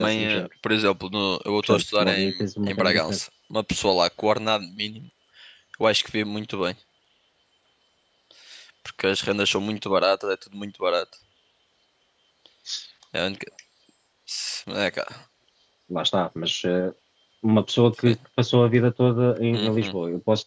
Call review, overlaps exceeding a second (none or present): present